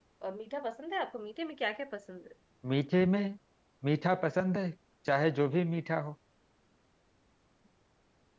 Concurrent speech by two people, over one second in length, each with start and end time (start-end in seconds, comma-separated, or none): none